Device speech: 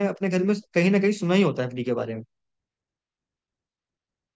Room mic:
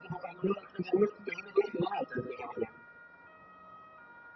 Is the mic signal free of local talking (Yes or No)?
Yes